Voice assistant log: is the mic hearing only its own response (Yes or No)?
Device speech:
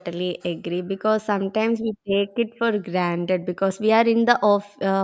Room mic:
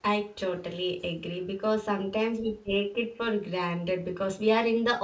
Yes